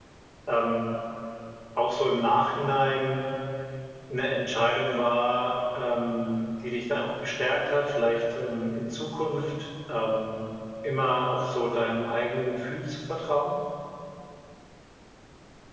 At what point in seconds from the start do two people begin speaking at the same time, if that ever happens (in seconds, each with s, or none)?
none